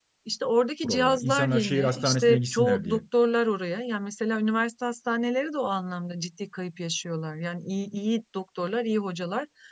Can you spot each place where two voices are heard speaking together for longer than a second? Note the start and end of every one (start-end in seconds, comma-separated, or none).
0.8-3.0